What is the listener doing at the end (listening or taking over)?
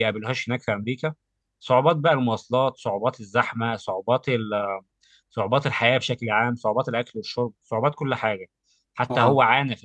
listening